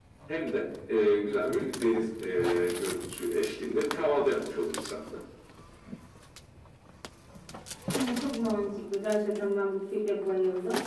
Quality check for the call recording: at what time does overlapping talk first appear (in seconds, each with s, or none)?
none